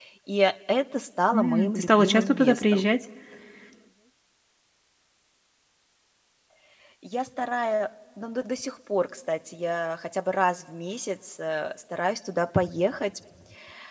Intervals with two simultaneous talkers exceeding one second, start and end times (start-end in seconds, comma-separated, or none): 1.3-2.9